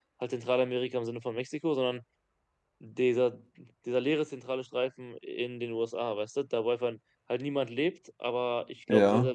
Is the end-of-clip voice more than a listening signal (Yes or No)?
No